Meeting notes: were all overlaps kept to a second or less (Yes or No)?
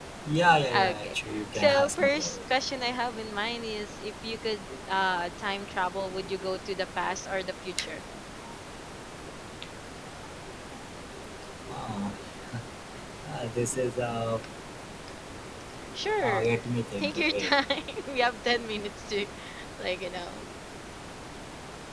No